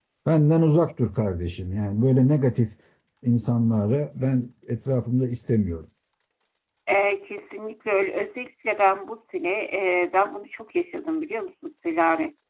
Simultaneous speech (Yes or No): No